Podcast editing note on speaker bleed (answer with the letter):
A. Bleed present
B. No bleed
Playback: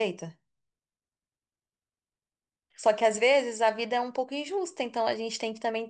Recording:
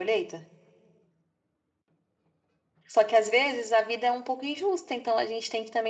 A